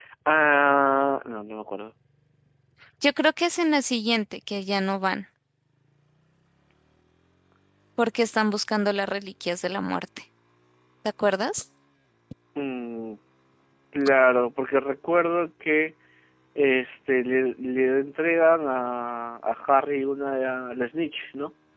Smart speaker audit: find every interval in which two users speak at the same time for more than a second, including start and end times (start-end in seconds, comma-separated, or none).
none